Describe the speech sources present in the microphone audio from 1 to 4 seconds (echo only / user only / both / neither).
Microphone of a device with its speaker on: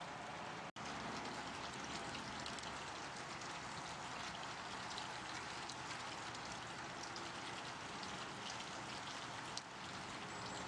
neither